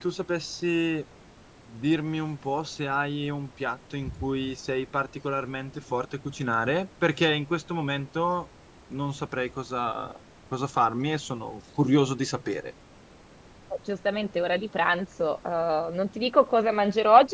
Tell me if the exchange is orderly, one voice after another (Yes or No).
Yes